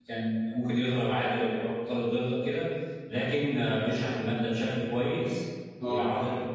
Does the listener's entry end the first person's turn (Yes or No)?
No